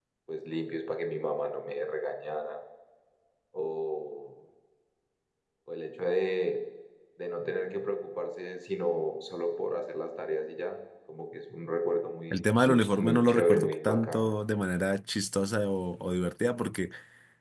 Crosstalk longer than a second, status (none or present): present